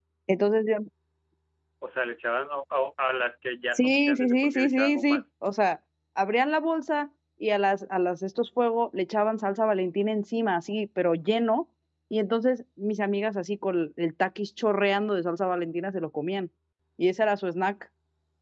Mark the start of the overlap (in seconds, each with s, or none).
3.7 s